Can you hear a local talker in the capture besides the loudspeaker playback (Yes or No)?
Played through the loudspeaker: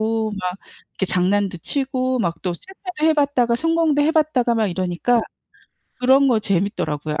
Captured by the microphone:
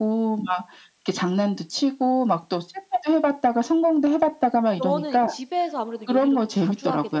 Yes